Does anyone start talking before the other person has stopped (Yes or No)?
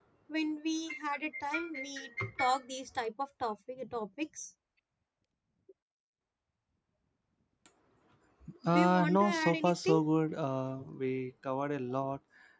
Yes